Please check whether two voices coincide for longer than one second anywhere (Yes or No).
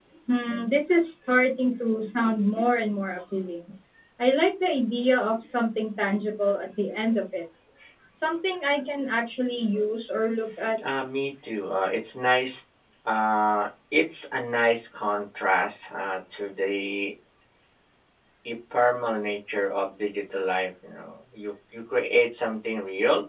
No